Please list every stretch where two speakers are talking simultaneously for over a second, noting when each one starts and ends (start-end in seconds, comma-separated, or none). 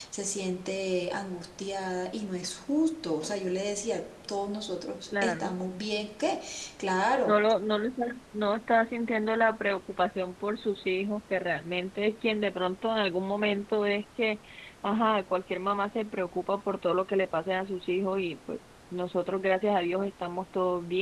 none